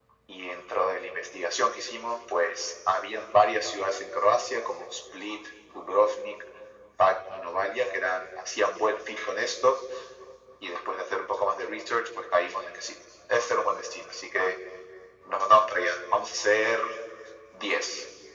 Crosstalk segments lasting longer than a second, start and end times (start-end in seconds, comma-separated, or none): none